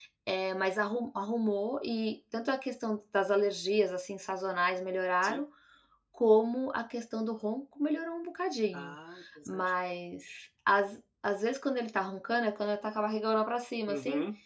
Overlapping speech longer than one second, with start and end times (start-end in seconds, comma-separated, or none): none